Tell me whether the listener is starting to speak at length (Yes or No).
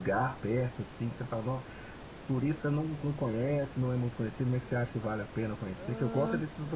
No